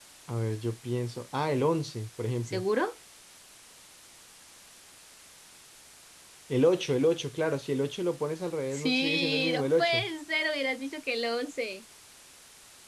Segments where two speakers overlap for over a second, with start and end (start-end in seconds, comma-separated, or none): 8.7-10.1